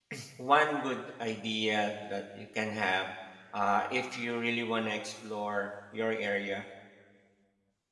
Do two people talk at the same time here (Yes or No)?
No